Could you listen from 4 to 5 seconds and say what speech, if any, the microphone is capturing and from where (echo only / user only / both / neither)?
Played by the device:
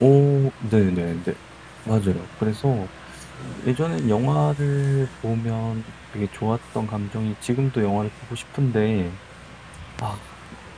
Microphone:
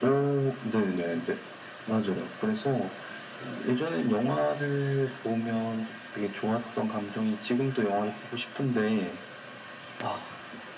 echo only